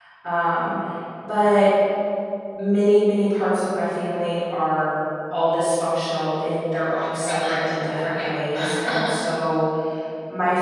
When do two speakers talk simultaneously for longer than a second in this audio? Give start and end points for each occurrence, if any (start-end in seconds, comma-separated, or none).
7.0-9.1